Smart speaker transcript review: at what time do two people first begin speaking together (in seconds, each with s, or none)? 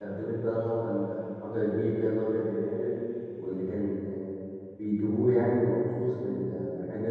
none